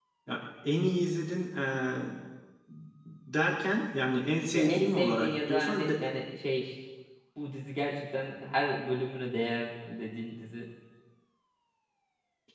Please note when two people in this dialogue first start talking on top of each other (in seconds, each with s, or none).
4.5 s